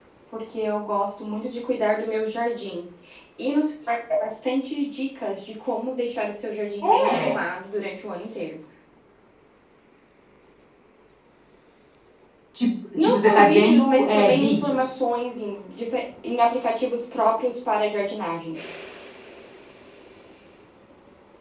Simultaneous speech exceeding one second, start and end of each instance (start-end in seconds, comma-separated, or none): 13.0-14.9